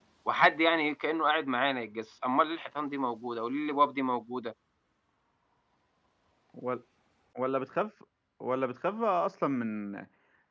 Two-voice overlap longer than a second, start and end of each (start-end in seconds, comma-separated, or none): none